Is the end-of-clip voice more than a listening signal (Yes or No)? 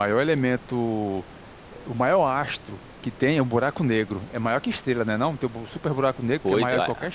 Yes